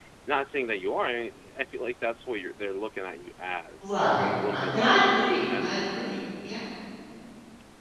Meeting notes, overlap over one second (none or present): present